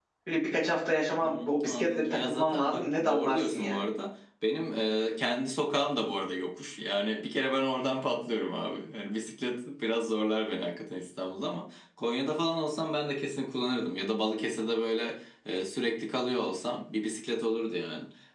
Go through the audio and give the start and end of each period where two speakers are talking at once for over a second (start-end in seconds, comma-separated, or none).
1.2-3.8